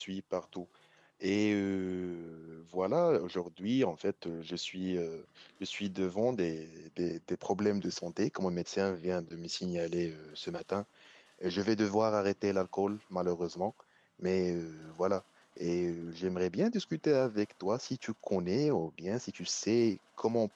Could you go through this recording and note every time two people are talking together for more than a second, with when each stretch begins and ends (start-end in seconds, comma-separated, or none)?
none